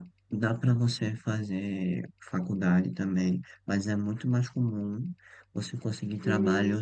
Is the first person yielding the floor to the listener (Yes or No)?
No